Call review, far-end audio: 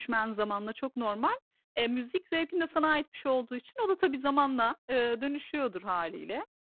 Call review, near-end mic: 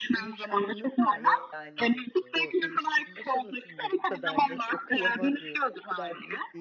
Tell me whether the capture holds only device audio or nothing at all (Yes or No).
No